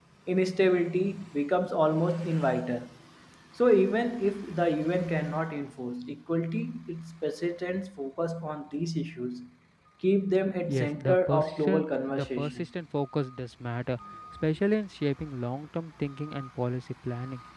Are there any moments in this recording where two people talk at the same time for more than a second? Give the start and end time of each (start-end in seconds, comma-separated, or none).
10.7-12.5